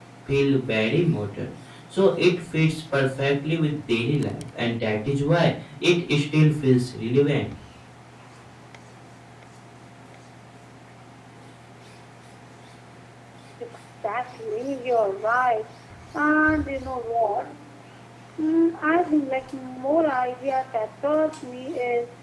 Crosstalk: none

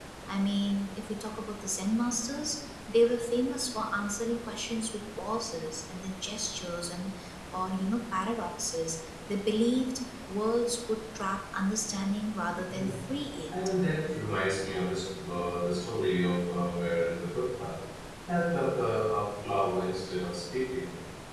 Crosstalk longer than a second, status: none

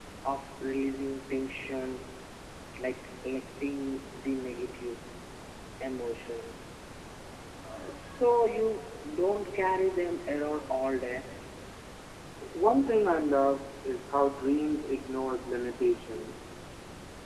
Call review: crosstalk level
none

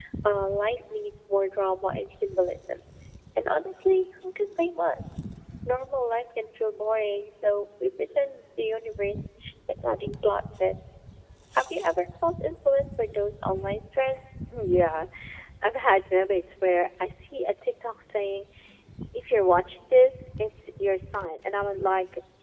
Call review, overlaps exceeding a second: none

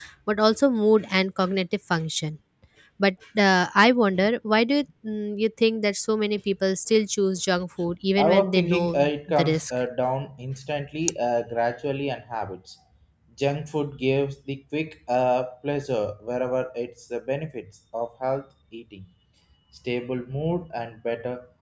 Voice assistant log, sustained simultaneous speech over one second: present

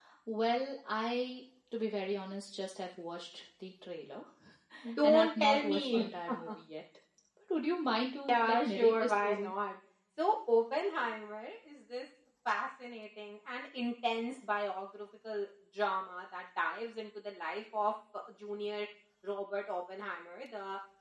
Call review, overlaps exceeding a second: present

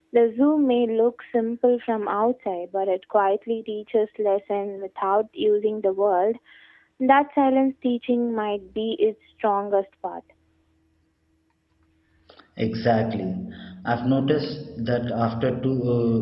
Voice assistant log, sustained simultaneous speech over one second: none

